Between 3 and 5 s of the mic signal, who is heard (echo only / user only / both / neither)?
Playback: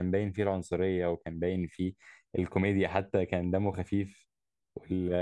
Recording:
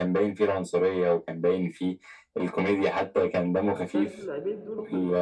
both